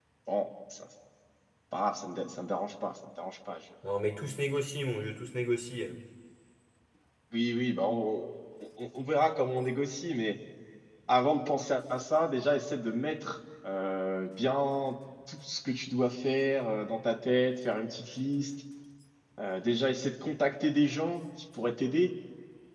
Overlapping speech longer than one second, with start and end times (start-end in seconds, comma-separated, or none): none